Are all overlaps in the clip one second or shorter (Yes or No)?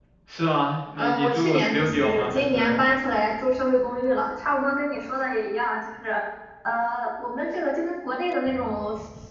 No